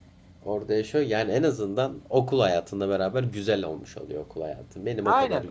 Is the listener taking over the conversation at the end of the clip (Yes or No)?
Yes